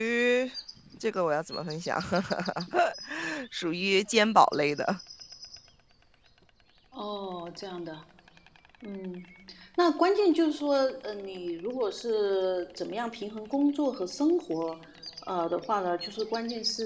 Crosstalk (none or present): none